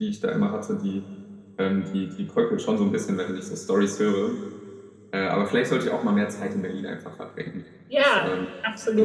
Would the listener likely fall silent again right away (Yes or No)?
No